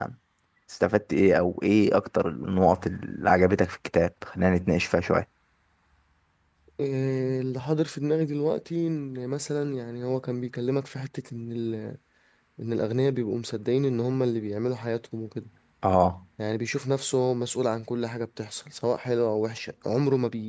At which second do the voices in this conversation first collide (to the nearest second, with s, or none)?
none